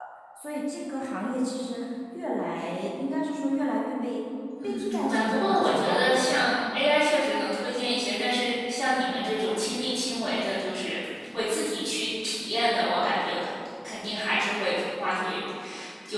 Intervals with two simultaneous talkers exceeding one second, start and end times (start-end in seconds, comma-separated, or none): 4.6-6.4